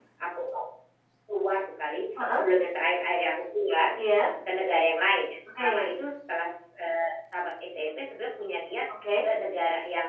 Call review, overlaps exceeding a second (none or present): none